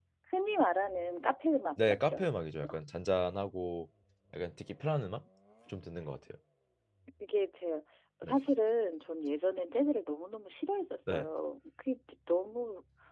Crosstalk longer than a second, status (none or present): none